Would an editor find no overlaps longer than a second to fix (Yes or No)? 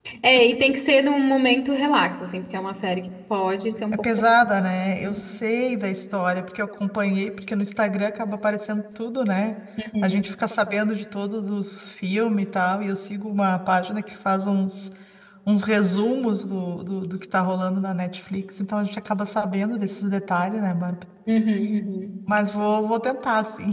Yes